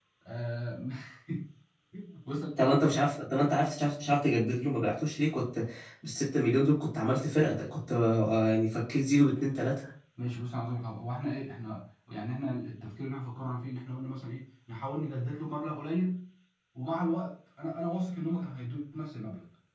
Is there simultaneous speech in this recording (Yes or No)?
No